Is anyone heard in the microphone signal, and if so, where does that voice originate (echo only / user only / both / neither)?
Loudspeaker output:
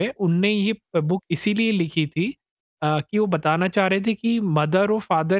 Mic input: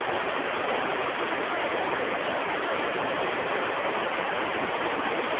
neither